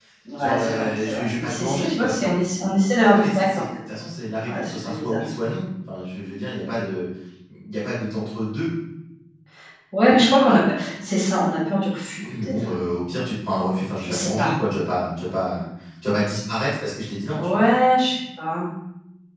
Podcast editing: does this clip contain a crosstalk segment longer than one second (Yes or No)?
Yes